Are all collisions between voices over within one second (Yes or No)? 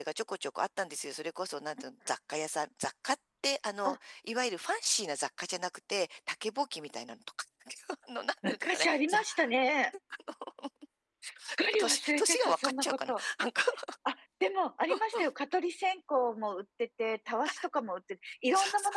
No